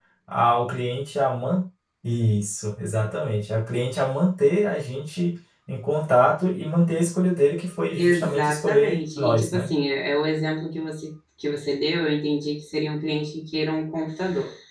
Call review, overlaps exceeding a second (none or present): present